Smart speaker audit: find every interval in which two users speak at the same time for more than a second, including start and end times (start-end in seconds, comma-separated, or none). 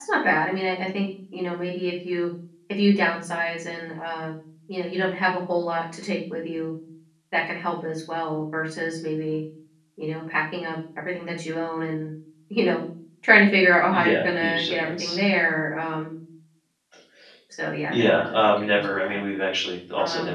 13.9-15.2, 17.9-19.2